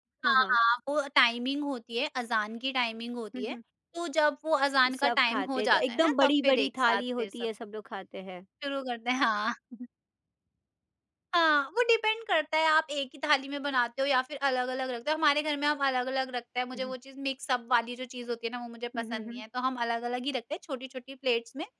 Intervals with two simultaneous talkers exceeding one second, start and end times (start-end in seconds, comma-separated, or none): 4.9-7.3